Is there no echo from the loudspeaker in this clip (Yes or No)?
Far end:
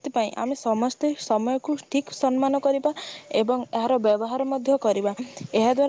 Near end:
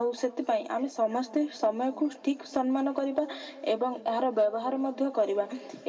No